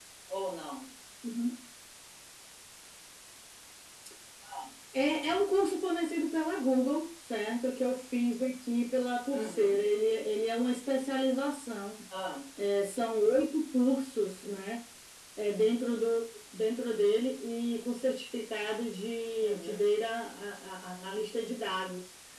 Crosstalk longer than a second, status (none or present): none